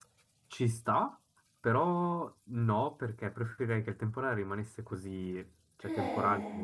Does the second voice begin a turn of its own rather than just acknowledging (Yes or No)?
No